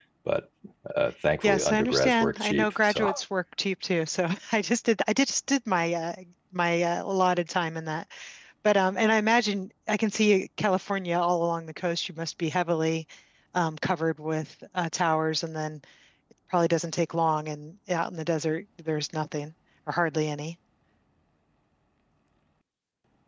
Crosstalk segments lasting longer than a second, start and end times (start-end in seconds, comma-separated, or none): 1.4-3.1